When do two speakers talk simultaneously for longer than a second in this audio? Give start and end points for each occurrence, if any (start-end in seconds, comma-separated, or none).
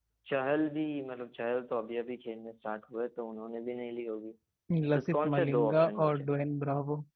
4.9-6.3